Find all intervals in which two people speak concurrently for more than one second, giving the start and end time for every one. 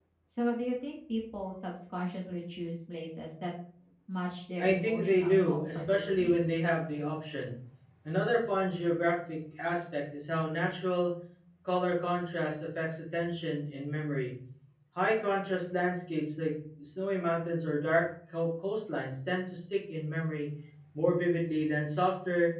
4.6-6.6

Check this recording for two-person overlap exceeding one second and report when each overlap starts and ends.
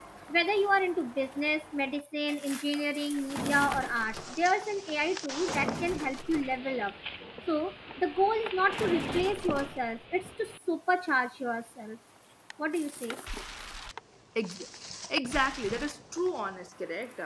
none

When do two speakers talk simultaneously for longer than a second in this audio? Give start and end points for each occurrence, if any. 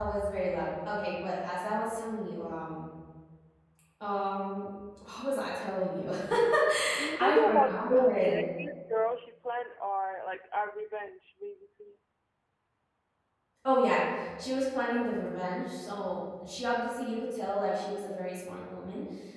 7.2-8.4

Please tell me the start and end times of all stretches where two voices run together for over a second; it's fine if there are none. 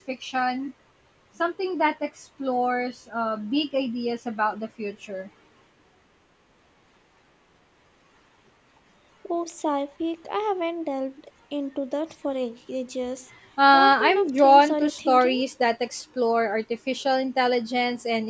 13.7-15.4

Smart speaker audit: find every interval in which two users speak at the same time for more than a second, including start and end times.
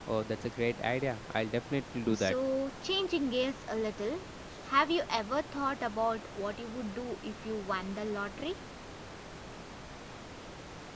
none

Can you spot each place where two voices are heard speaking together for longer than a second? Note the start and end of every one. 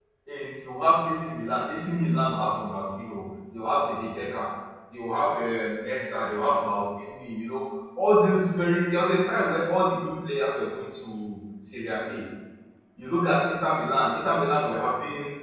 none

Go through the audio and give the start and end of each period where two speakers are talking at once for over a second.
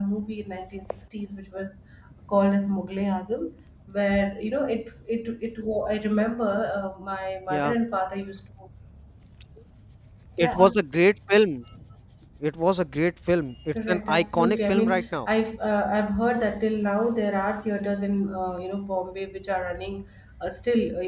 13.7-15.3

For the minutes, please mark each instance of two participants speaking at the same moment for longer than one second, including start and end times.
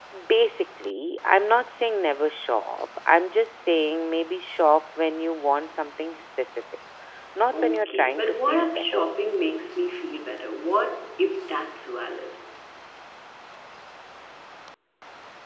7.5-9.1

